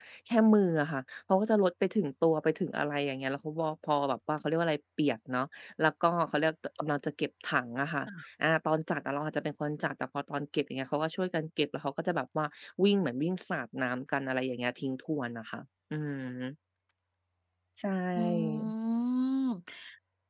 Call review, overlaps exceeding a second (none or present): none